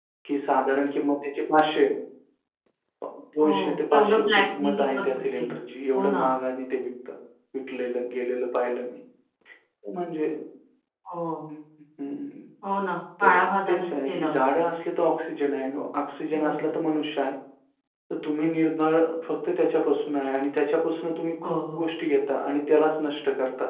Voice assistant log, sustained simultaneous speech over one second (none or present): present